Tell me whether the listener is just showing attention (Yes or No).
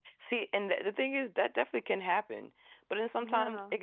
Yes